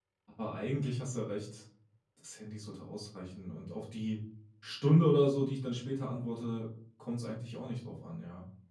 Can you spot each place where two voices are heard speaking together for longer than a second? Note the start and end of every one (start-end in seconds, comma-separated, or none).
none